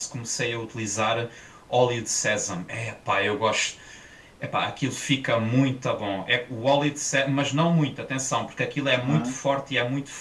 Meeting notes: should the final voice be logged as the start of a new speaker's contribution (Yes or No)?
No